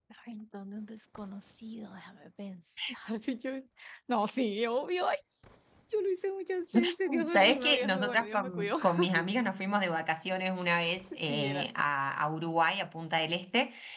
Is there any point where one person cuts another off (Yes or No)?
Yes